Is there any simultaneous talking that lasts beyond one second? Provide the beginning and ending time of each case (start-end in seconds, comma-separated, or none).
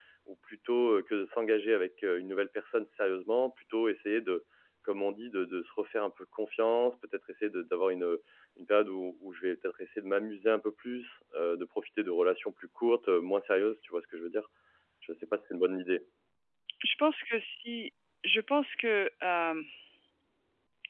none